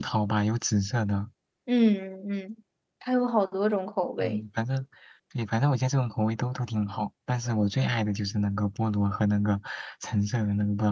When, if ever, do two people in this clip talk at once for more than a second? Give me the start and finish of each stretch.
none

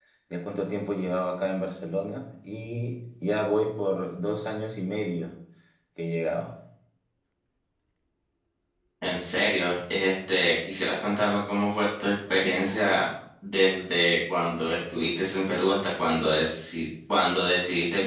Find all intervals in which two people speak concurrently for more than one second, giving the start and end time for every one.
none

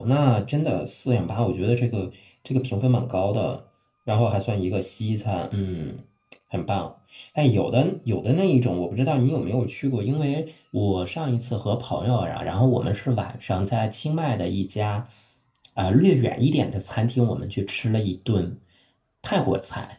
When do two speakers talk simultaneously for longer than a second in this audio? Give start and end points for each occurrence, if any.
none

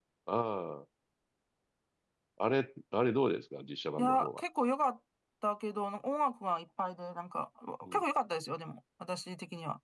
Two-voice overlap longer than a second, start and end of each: none

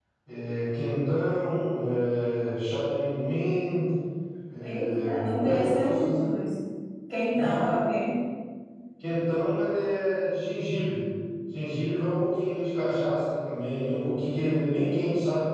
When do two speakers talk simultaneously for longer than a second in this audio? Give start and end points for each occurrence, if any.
4.6-6.2

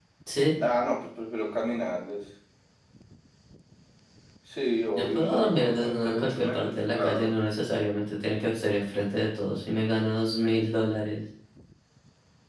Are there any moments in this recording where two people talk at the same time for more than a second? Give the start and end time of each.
4.9-7.3

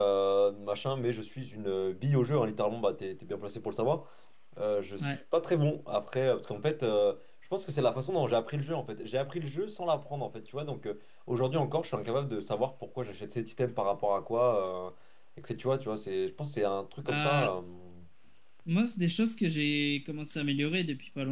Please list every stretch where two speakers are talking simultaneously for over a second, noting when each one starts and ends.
none

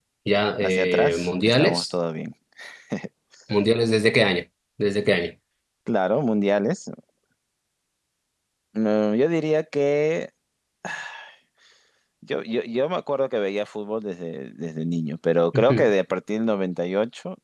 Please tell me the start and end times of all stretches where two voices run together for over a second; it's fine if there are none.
0.6-1.9

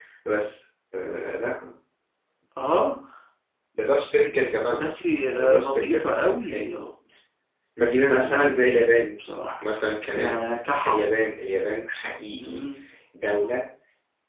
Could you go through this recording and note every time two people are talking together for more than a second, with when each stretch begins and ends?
5.4-6.7

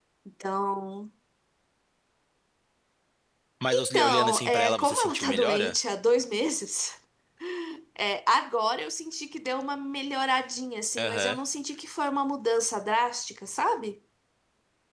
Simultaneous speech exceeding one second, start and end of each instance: 3.7-5.8

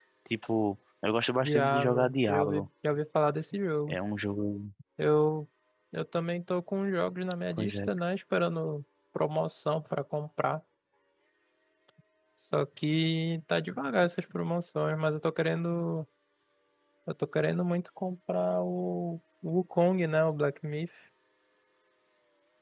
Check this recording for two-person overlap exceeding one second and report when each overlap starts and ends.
1.4-2.7

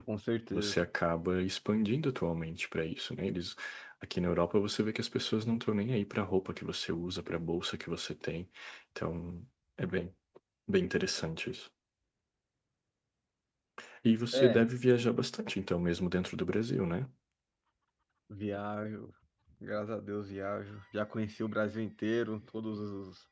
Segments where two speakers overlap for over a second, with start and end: none

